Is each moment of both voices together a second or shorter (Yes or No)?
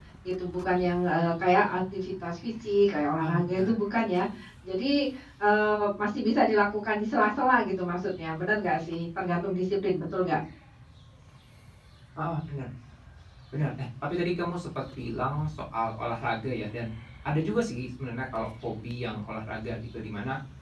Yes